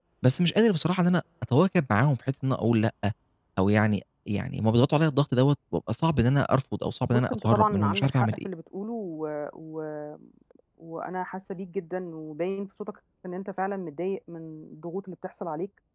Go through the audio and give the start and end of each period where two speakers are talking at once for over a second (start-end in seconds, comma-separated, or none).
7.1-8.5